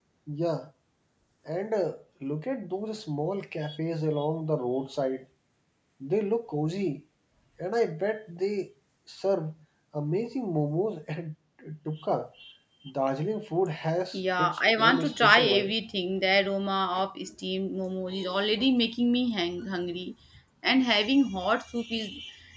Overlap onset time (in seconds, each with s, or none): 14.1 s